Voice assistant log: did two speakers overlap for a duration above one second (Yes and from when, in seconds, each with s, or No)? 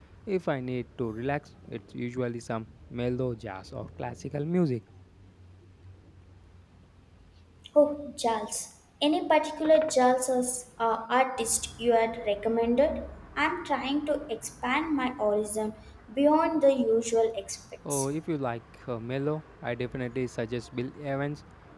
No